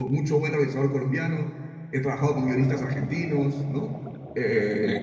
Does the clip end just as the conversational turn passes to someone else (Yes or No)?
No